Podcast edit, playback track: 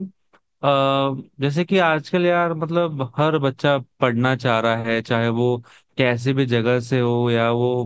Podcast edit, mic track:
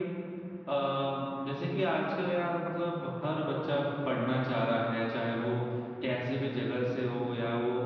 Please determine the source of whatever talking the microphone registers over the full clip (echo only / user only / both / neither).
echo only